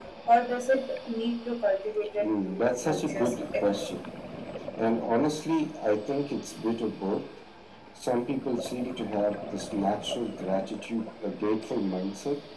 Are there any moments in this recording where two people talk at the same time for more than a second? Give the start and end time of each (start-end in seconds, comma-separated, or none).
2.2-3.9